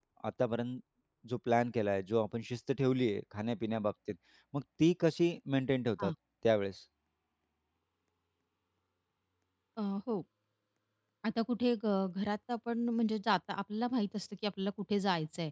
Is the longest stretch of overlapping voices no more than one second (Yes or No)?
Yes